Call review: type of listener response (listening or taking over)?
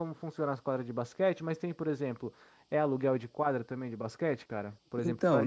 taking over